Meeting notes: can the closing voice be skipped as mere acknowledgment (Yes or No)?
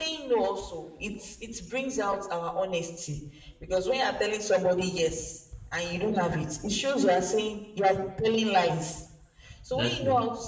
Yes